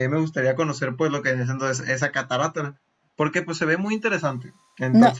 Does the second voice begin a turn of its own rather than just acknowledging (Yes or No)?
Yes